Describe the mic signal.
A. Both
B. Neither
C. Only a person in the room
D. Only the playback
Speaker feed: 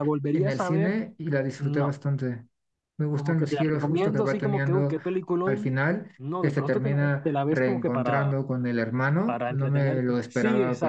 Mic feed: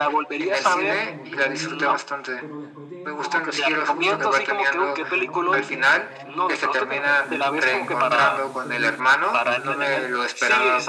A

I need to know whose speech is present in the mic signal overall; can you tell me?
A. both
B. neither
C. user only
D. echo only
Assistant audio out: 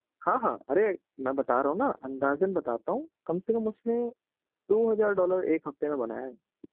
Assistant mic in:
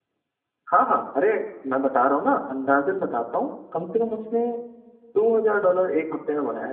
D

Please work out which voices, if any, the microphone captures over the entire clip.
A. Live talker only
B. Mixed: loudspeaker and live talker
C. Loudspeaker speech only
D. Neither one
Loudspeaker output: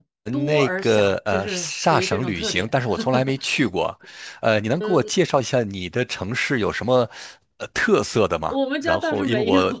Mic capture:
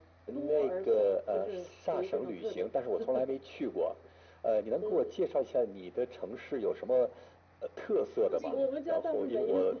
B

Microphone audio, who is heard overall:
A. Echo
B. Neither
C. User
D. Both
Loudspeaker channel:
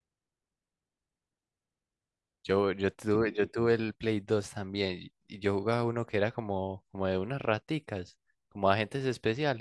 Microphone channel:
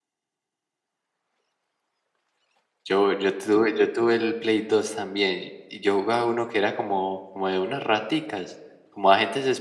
A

